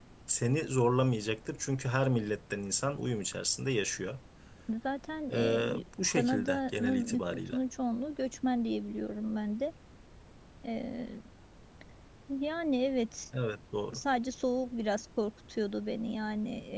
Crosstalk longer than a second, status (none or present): present